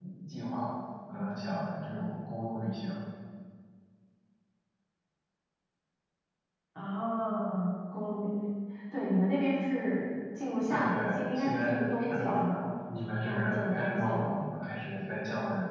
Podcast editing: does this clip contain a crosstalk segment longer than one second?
Yes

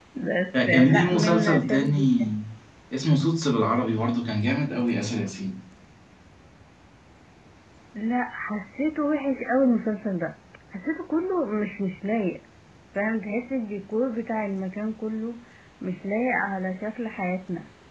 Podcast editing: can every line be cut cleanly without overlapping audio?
No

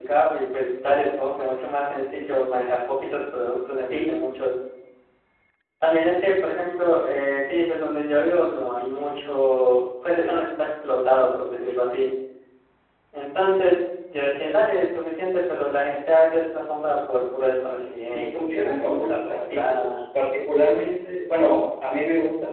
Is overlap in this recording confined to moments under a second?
No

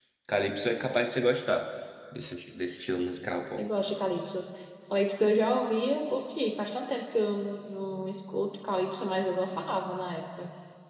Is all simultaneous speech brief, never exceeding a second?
Yes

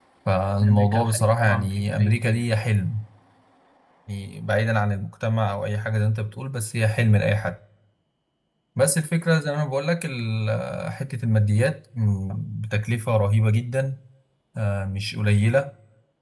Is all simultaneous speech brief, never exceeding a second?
No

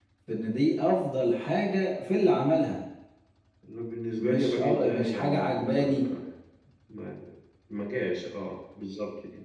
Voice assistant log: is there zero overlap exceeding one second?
No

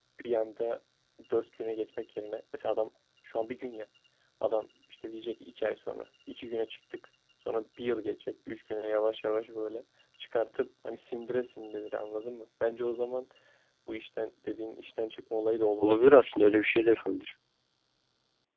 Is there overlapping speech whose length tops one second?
No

